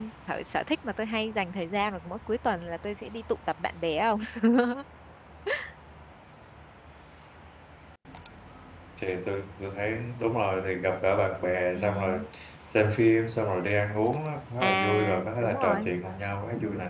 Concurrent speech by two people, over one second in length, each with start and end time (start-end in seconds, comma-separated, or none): 14.6-15.9